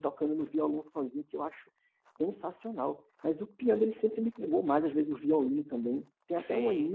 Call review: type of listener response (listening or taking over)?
listening